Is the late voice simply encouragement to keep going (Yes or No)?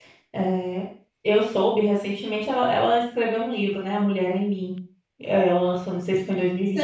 No